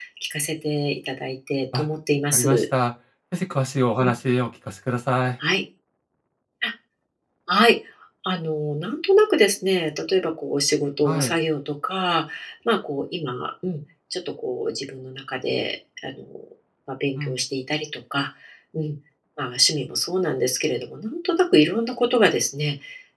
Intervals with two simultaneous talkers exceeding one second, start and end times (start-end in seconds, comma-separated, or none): none